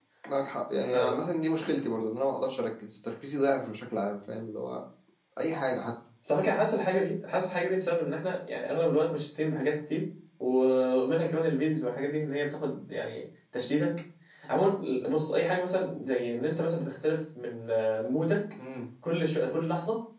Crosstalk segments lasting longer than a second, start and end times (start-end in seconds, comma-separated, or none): none